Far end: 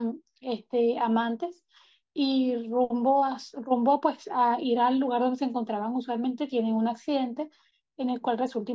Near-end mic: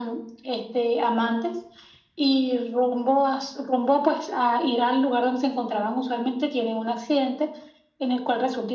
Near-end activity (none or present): none